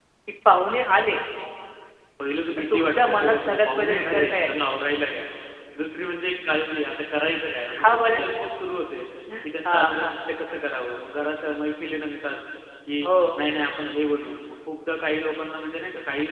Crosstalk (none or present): present